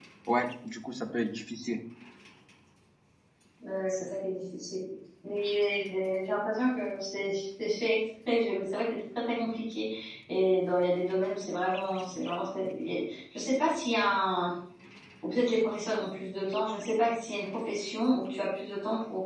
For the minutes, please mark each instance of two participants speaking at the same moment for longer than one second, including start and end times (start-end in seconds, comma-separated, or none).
none